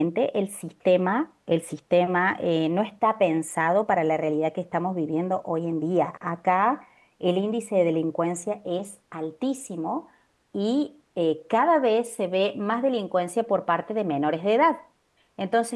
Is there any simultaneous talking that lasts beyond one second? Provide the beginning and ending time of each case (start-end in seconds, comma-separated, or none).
none